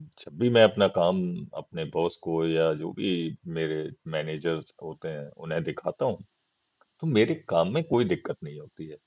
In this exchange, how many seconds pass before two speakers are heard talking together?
none

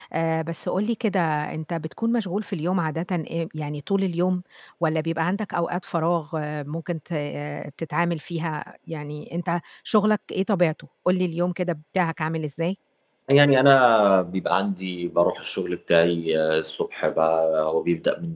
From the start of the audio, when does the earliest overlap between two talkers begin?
none

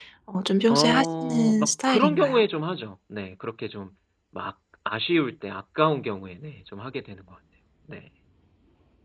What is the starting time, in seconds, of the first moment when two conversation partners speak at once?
0.7 s

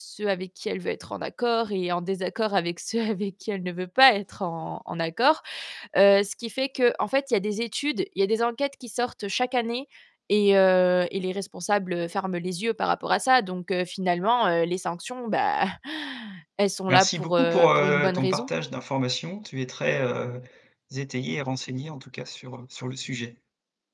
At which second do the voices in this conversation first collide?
16.9 s

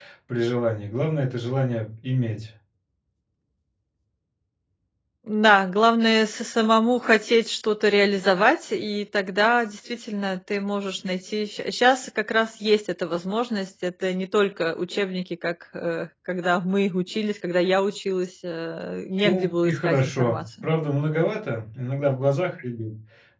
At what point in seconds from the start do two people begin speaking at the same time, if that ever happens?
19.2 s

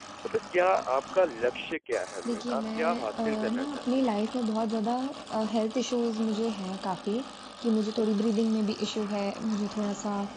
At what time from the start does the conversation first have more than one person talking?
2.2 s

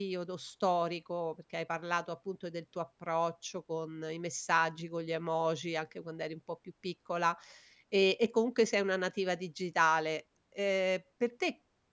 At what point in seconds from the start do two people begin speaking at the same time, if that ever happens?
none

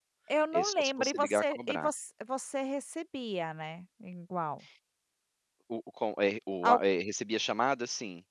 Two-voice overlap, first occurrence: 0.5 s

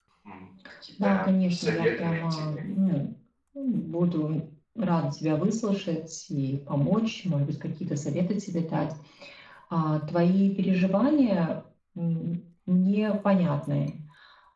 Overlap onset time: 1.0 s

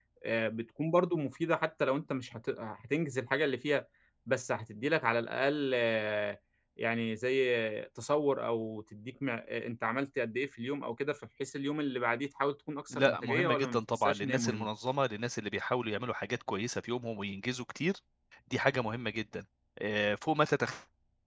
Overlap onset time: 12.9 s

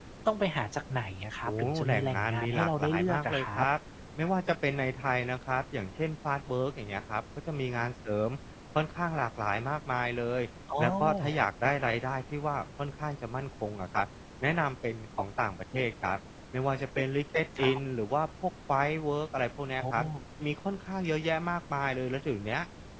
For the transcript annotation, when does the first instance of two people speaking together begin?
1.4 s

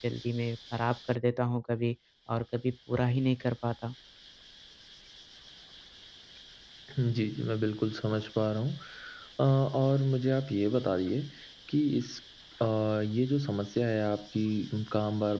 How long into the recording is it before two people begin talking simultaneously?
none

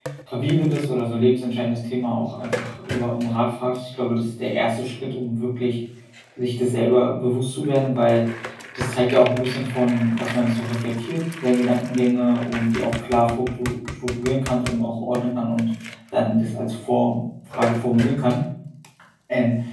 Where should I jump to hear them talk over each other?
none

